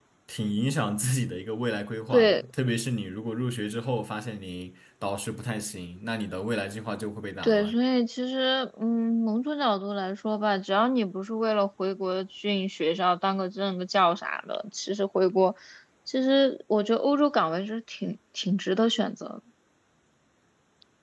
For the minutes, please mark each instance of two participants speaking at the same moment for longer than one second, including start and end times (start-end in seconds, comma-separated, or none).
none